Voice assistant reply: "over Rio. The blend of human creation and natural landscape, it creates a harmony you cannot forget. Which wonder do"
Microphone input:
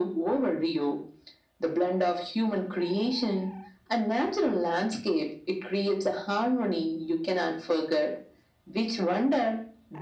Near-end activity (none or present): none